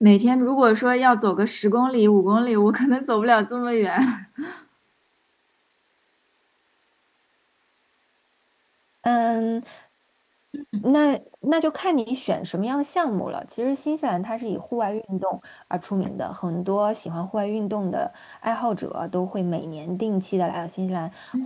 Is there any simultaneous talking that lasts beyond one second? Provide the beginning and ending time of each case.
none

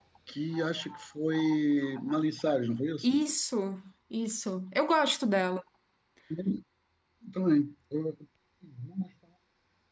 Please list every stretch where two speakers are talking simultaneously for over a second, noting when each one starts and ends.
none

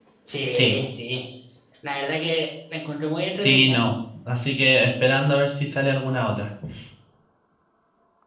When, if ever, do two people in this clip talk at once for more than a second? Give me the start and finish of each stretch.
none

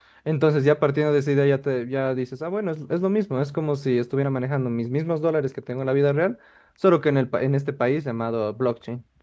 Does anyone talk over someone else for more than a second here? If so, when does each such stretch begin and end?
none

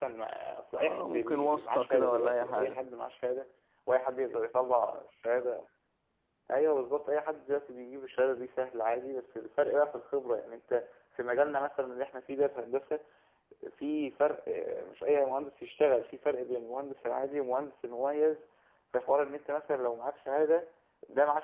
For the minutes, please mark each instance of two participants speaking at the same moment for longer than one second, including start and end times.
0.8-2.8

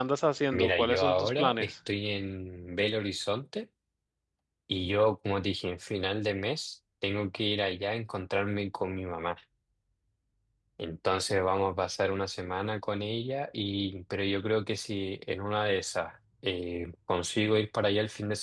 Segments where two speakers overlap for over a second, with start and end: 0.5-1.7

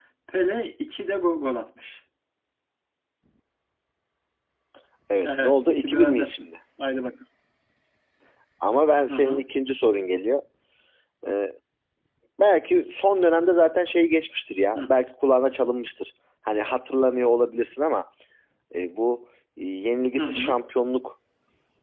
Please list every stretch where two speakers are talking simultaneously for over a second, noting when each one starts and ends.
5.2-6.5

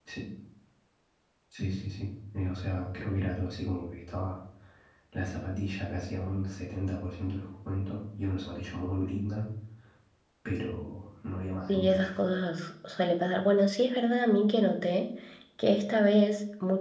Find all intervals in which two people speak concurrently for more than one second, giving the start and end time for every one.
none

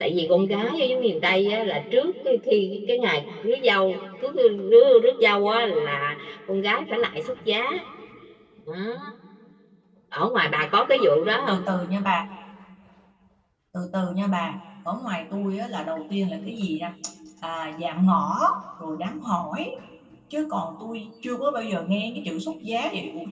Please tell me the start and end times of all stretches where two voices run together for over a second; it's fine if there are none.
none

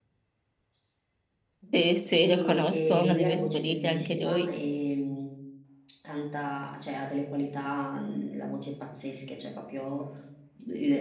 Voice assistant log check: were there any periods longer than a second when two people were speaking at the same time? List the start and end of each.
2.1-4.6

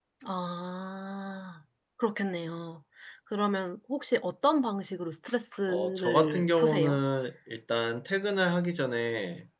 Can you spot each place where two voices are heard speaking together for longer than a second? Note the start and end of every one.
5.7-7.0

